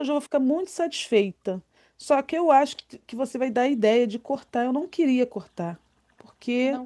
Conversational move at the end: listening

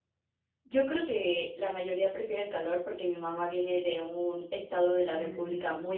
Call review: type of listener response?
listening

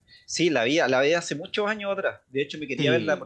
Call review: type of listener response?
listening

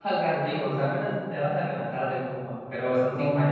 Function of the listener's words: listening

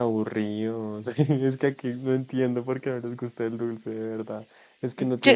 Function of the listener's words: listening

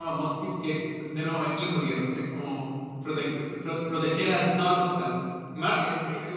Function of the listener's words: listening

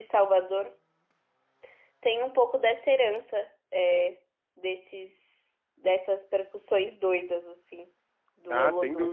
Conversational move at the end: taking over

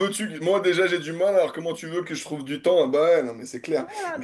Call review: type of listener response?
taking over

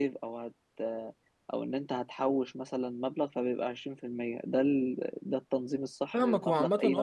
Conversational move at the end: taking over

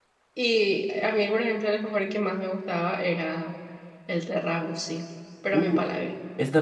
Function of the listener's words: taking over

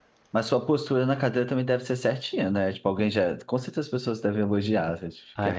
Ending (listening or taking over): taking over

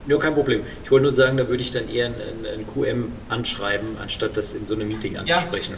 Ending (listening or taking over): taking over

